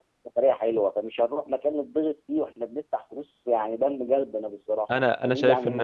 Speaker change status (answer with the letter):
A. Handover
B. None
A